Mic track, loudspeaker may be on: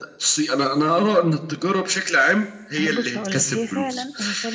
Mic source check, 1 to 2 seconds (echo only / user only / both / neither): echo only